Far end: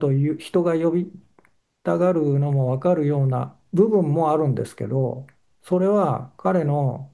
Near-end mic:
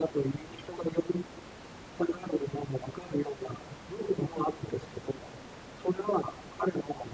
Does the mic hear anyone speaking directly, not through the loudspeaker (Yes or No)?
No